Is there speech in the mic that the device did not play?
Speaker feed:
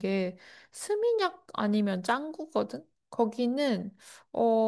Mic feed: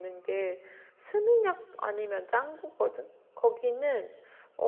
No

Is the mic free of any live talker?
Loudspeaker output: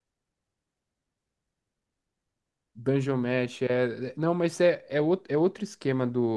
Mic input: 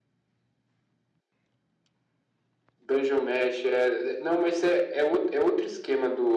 Yes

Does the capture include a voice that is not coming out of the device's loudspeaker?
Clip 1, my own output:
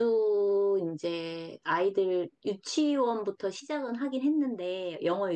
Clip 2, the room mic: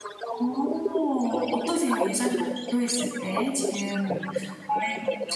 Yes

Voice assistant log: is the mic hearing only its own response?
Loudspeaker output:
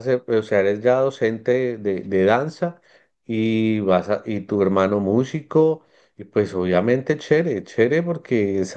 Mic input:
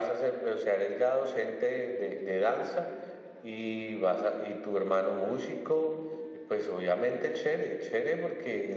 Yes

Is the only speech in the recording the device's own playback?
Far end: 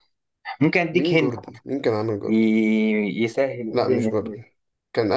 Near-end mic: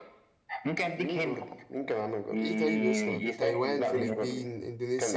No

